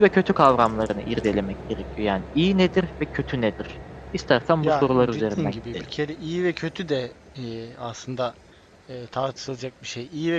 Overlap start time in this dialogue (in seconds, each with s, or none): 4.6 s